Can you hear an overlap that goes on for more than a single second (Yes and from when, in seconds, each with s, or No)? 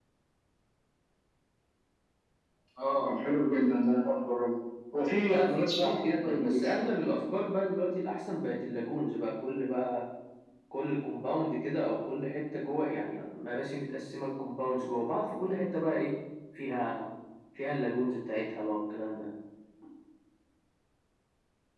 Yes, from 5.2 s